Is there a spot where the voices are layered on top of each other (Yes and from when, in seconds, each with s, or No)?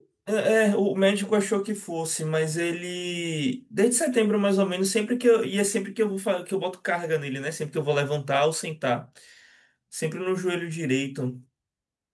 No